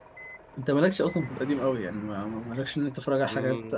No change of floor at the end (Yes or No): Yes